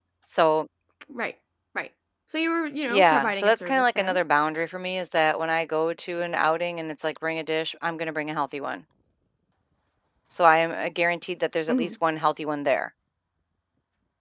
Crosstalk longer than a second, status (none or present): present